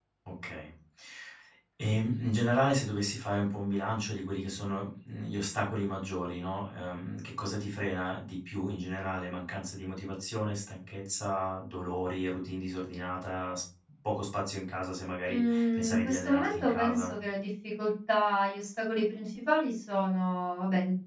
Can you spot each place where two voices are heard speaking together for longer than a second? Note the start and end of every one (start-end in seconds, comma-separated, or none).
15.3-17.1